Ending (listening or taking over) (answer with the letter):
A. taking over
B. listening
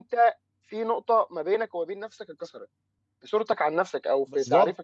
A